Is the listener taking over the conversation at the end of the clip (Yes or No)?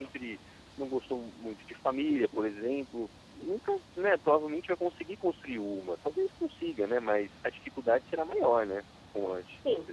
Yes